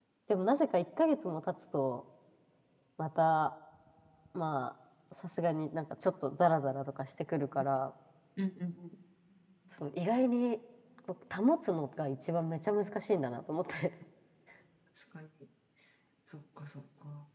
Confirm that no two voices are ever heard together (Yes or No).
Yes